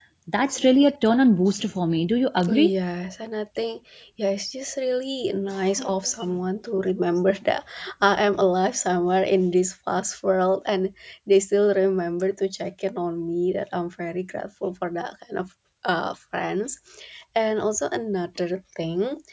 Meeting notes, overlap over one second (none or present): none